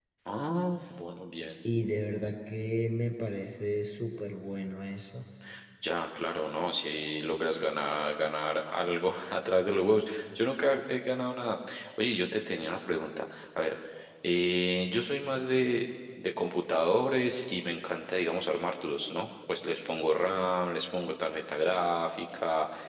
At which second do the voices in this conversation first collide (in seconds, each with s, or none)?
none